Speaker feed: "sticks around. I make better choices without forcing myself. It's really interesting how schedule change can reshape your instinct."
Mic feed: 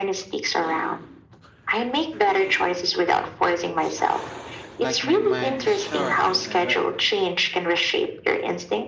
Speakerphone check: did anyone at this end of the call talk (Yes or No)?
Yes